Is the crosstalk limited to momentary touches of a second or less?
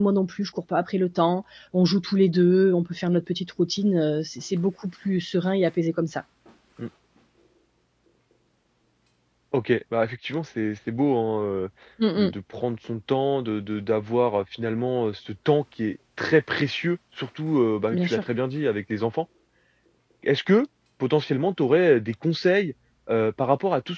Yes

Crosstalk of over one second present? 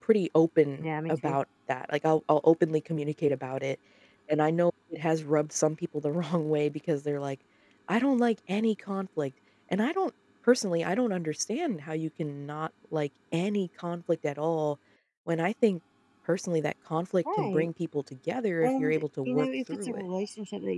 Yes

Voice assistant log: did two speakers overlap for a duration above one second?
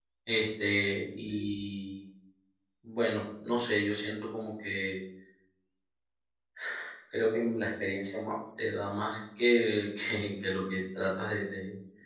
No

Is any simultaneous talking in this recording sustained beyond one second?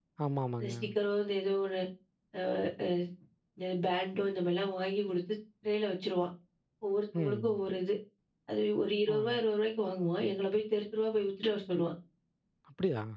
No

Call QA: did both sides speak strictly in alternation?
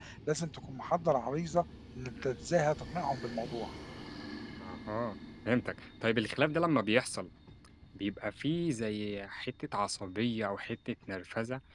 Yes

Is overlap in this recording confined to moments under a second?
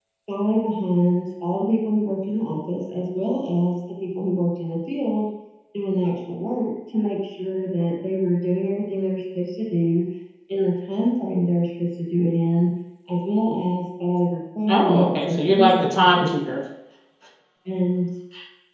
No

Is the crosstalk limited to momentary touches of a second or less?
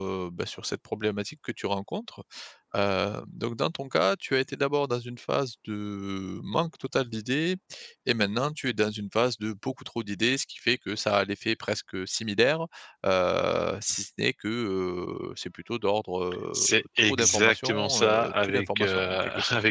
No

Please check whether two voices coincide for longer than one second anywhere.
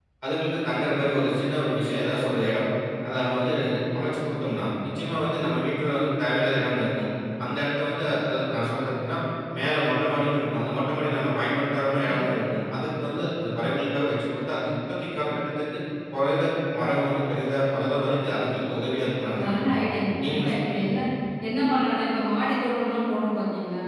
Yes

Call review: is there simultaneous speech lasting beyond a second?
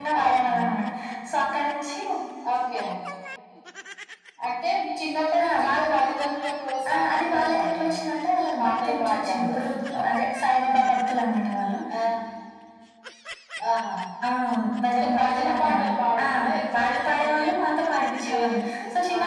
Yes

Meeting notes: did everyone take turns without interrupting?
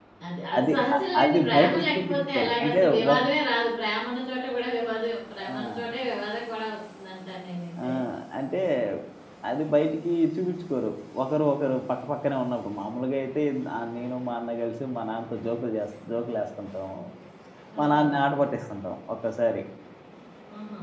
No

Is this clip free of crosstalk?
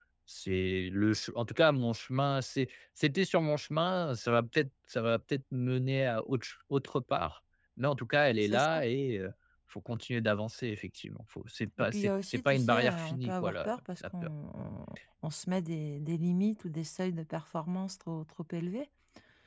No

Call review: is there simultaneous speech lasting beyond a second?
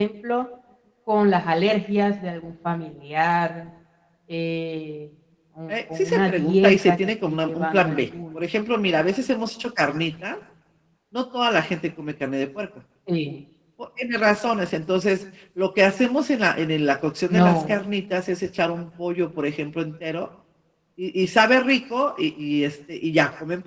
Yes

